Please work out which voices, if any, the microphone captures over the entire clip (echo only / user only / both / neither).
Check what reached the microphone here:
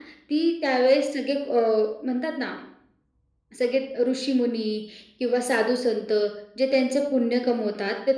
echo only